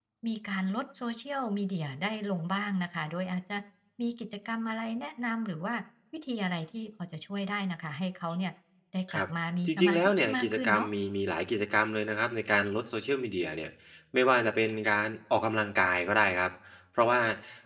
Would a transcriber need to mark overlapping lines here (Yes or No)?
Yes